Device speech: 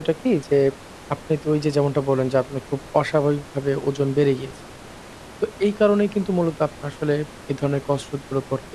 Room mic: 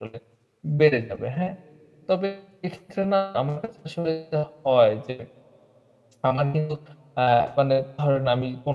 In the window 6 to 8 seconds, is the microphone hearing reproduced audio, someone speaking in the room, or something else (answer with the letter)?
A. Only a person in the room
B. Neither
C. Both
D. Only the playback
A